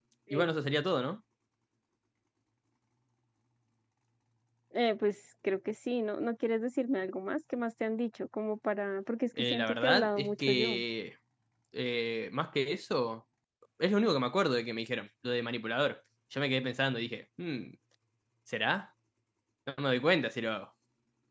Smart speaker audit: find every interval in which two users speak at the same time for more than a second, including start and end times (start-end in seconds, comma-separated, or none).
9.5-10.8